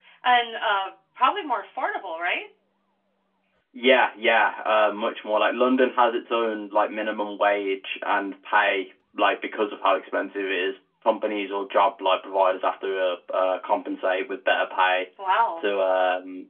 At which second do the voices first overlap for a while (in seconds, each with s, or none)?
none